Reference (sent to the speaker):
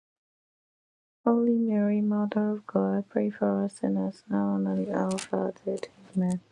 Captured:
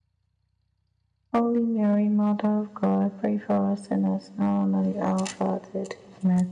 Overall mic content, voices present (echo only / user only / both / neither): echo only